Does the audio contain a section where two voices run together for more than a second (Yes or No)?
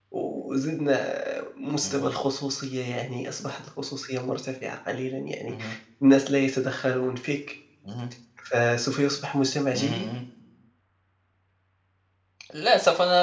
No